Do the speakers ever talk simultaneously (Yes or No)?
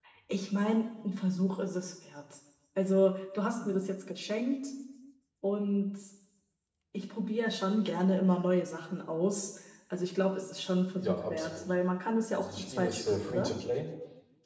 Yes